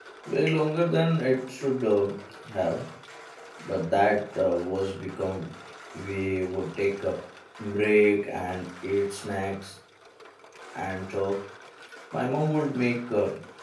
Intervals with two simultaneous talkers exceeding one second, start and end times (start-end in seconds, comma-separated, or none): none